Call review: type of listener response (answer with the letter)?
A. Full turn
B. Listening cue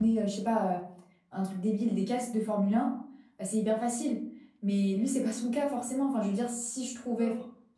B